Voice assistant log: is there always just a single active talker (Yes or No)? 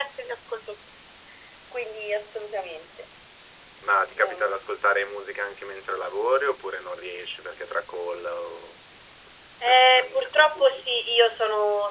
No